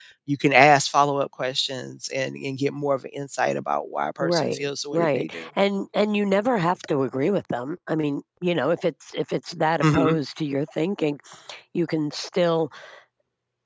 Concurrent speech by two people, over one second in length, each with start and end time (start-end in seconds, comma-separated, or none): 4.2-5.5